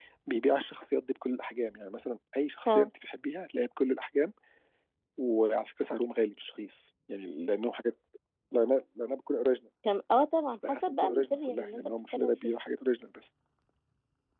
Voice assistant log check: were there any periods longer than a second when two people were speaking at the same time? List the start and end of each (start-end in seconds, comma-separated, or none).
10.8-12.5